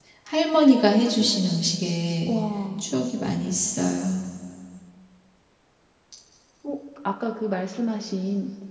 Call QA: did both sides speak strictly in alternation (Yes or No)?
Yes